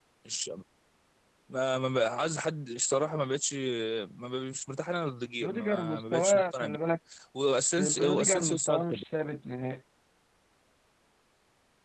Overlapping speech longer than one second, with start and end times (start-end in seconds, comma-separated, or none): 5.4-6.8, 7.8-9.0